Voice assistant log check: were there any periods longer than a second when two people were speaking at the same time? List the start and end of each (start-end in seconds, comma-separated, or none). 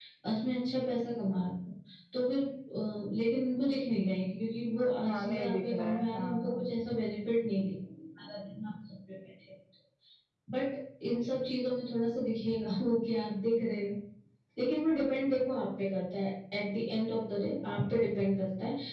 5.0-6.7